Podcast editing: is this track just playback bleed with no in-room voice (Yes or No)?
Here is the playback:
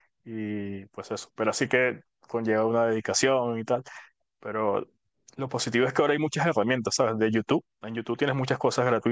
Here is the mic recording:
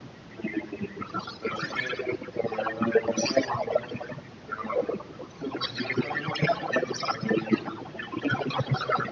Yes